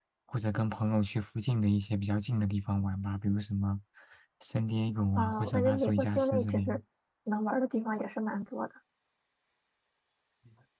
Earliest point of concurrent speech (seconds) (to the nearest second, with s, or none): 5 s